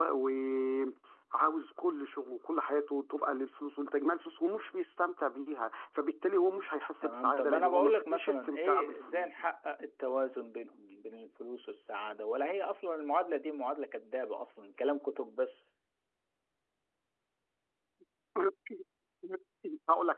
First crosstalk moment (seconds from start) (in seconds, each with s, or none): 7.0 s